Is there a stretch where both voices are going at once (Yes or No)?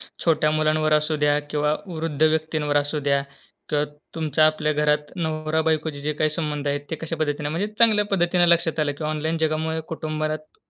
No